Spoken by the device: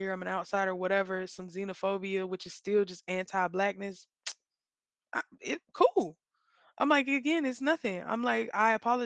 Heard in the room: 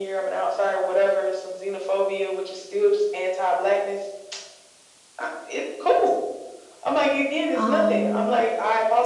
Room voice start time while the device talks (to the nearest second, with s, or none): 8 s